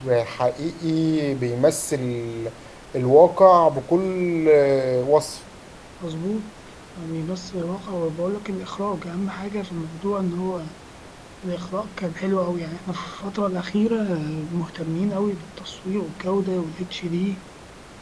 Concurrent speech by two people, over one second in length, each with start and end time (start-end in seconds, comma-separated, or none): none